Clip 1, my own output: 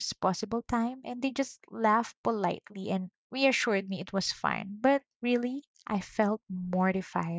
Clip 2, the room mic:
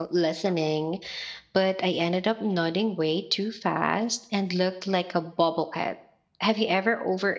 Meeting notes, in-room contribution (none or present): present